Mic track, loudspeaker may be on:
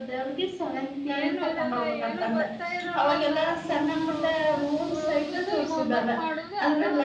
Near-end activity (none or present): present